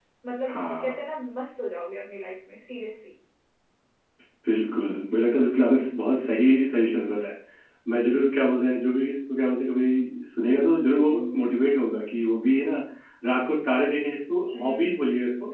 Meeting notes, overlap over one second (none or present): none